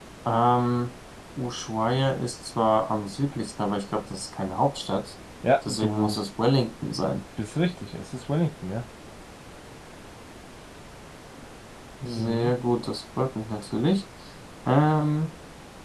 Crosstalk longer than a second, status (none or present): none